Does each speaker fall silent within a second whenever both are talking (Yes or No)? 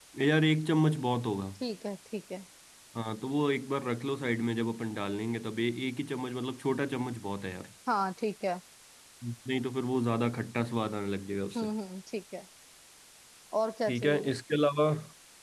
Yes